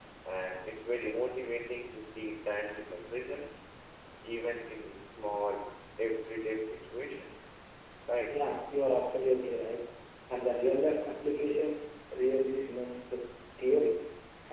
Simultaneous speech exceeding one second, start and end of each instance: none

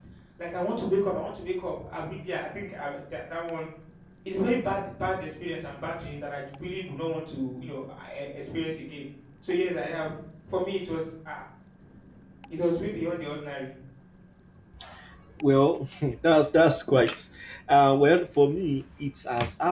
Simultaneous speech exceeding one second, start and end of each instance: none

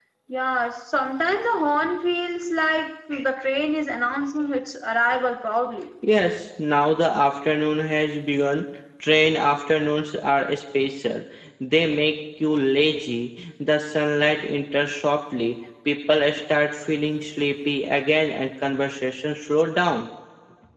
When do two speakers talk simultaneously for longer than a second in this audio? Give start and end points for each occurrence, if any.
none

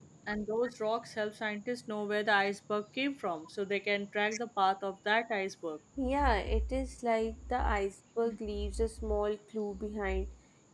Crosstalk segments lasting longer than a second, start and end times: none

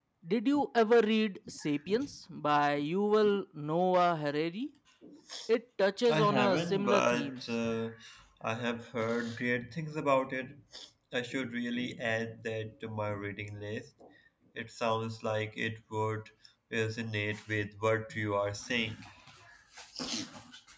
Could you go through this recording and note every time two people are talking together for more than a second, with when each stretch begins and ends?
6.1-7.4

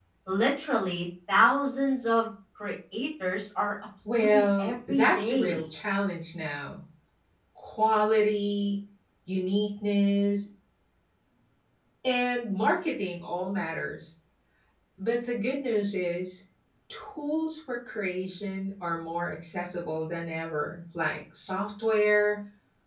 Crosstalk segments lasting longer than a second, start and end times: 4.1-5.6

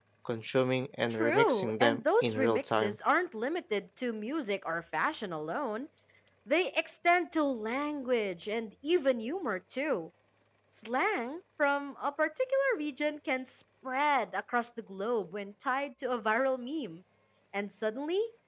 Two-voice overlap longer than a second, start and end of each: 1.1-3.0

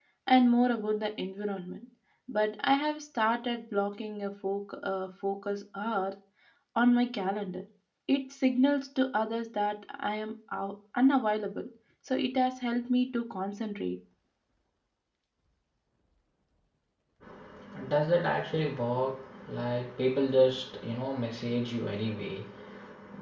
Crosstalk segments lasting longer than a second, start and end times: none

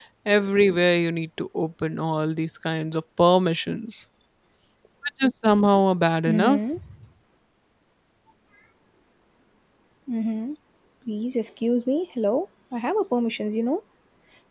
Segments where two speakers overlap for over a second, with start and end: none

